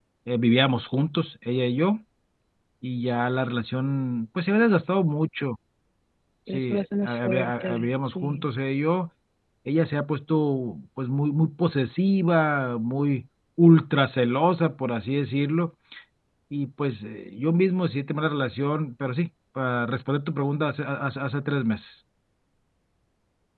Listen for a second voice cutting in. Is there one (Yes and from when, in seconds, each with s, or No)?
Yes, from 6.5 s